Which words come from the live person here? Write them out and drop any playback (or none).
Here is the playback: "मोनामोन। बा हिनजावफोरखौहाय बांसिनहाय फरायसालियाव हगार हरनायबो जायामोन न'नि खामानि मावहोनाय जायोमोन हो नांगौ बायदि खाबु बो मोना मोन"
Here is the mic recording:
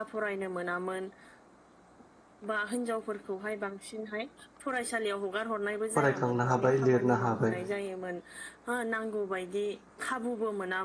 फरायखांनो हाबाय लिरनो हाबाय।